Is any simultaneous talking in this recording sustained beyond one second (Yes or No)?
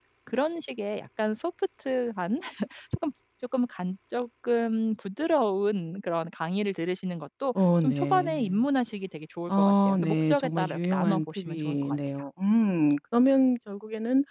Yes